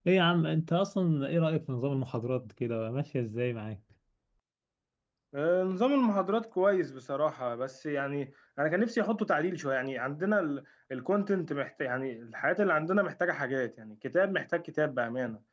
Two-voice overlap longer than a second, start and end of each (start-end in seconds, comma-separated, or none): none